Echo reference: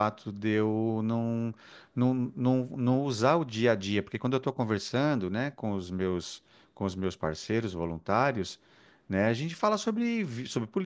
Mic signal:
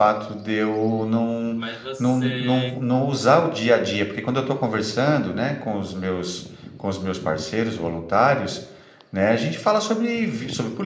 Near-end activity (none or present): present